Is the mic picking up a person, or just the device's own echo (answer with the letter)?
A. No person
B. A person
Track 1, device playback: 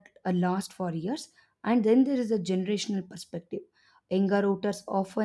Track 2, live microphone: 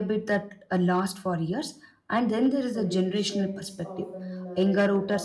B